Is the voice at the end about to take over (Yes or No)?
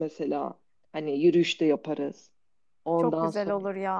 Yes